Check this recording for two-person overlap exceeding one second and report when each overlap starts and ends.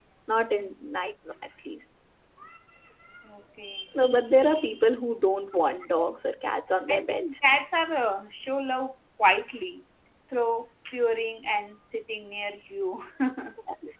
none

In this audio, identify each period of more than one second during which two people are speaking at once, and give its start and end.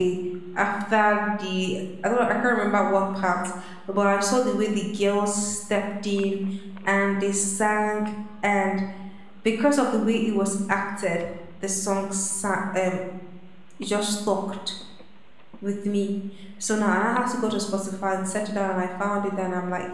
none

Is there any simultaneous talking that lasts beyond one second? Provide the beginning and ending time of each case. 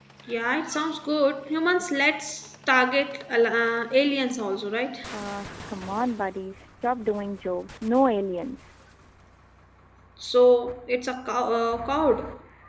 none

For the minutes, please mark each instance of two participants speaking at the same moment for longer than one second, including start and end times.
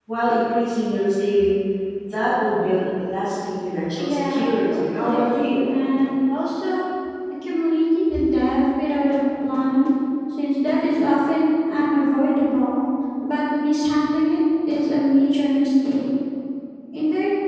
4.0-5.6

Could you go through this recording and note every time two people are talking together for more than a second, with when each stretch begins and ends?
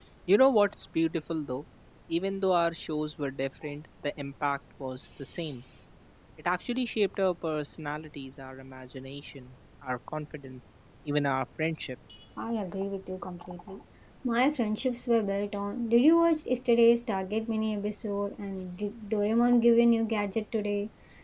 none

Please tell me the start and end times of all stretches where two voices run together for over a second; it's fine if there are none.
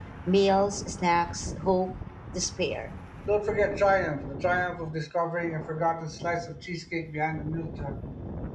none

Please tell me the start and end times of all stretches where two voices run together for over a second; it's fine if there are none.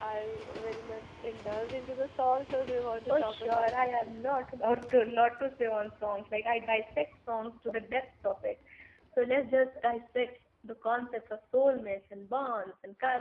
3.0-4.3

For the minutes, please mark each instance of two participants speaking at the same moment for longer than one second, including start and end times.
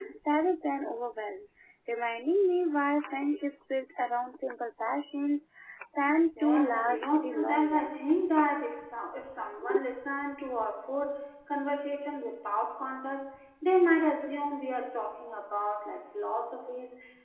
6.4-8.0

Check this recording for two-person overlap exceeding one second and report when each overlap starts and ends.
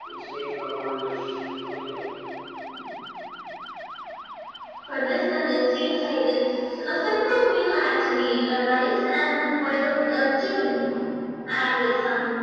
none

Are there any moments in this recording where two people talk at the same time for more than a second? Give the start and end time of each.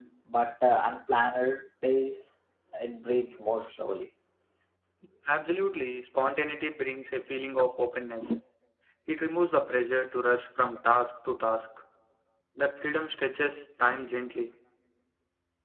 none

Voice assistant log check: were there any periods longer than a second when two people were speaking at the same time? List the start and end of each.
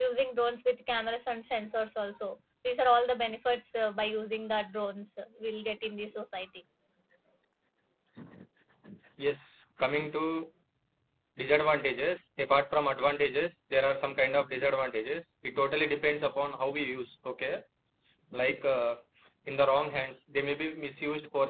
none

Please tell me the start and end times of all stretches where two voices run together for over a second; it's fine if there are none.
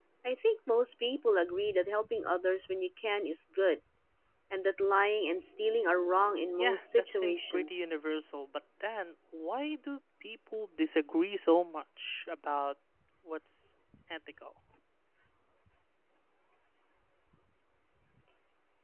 6.6-7.9

